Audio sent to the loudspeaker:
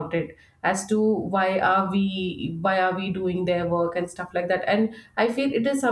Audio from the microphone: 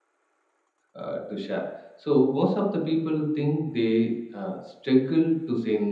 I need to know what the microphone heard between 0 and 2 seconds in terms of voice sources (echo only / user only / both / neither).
user only